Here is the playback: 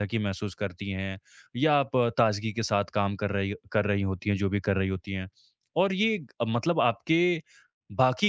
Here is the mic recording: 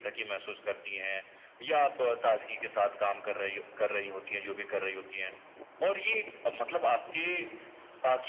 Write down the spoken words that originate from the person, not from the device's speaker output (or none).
none